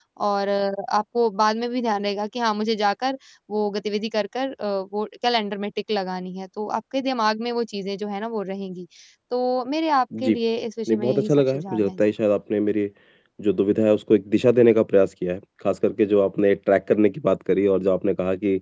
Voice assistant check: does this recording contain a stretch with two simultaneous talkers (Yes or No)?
Yes